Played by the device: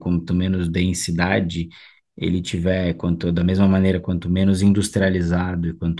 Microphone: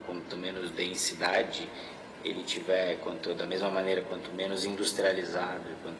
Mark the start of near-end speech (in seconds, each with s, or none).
none